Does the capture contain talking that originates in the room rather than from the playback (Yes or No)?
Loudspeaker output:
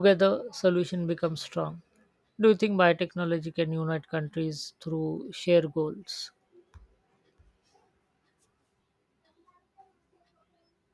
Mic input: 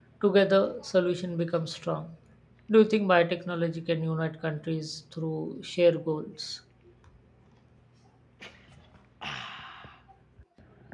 No